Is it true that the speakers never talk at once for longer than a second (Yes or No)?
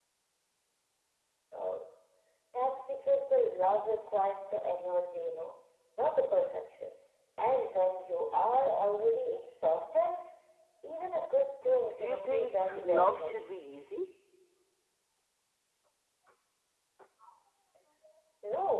No